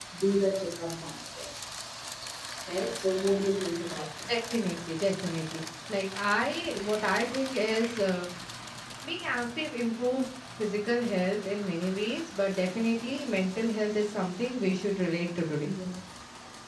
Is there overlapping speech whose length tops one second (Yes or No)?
No